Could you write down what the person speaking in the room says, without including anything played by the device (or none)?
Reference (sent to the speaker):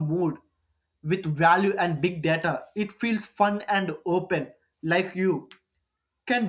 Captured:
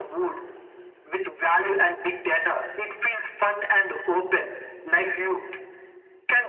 none